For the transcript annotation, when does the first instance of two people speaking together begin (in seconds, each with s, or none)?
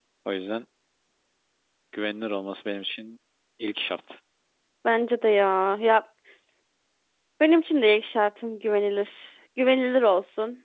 none